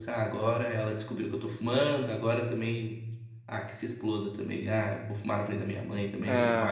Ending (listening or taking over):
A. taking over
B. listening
B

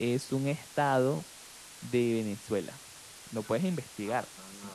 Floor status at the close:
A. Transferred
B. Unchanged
A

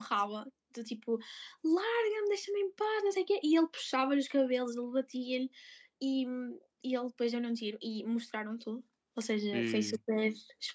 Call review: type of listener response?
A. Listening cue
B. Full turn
A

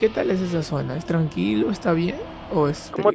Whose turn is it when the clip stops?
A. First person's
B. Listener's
B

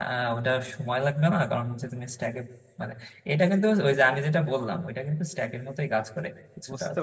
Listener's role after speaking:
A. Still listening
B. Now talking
B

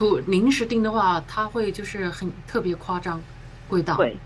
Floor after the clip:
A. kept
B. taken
B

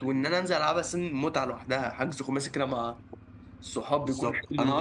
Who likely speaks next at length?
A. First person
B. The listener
B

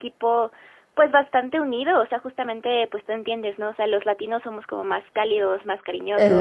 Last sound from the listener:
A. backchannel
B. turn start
A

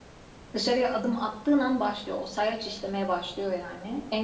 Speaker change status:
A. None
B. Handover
A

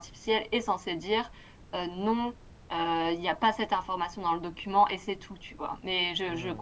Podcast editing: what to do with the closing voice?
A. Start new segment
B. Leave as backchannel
B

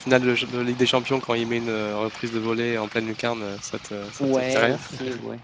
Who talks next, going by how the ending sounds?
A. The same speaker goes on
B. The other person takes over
B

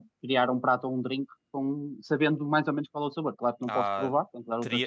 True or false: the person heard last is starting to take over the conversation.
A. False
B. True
B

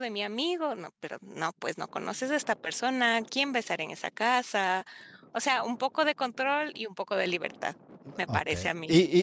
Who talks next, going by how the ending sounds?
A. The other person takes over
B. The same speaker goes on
A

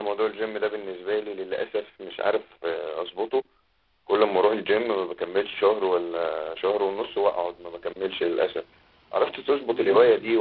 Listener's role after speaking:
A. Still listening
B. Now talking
A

